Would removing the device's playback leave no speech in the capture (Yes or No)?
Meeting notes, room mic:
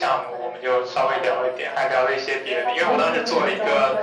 No